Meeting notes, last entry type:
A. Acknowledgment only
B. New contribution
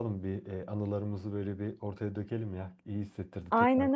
B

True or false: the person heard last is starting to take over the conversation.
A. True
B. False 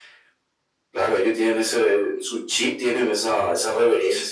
B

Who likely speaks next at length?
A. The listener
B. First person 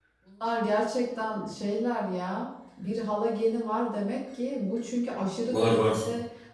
B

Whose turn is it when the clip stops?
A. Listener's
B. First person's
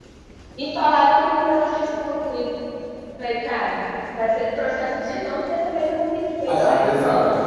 A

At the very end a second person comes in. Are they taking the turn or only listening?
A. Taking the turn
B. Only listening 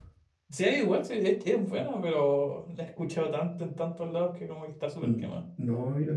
A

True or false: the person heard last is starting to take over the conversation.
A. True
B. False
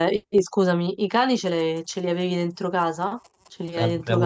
A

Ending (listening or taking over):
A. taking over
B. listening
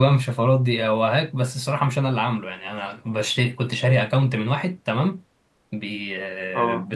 B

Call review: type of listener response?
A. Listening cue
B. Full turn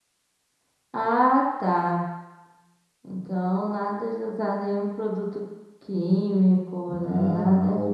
B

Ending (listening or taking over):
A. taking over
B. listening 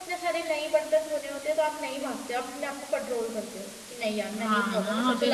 A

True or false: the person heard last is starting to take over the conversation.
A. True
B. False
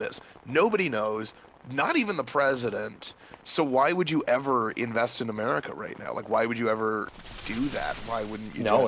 A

